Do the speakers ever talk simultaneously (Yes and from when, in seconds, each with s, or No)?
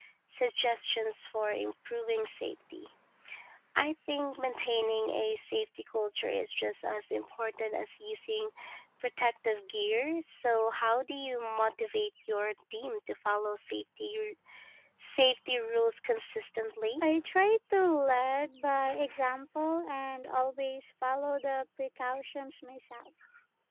No